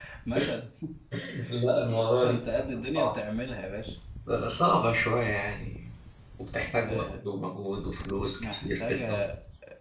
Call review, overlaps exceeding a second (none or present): present